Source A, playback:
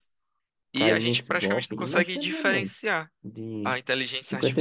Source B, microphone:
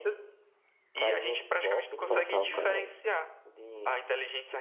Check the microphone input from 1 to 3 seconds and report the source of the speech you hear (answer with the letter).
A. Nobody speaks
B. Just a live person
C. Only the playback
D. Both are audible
D